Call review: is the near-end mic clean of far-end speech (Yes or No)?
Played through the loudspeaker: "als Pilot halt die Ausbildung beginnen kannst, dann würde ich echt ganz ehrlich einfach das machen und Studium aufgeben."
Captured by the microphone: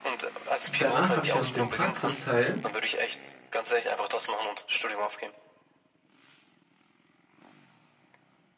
No